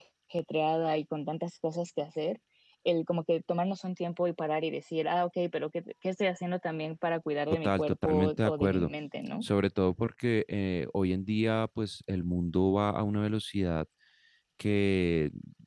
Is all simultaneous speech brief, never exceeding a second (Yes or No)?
No